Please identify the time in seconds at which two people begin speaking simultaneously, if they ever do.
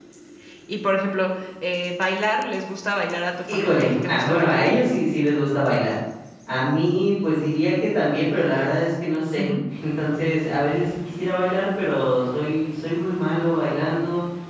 3.5 s

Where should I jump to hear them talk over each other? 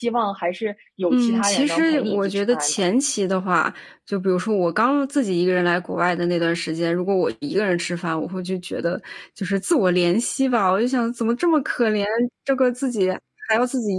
1.1 s

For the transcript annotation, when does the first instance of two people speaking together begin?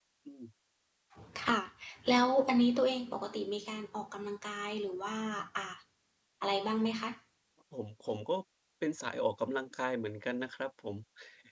none

